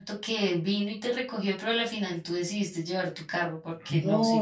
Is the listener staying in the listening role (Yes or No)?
No